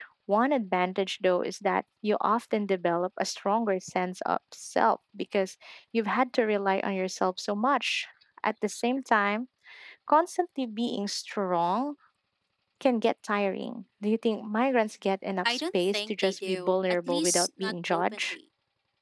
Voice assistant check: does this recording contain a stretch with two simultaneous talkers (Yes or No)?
Yes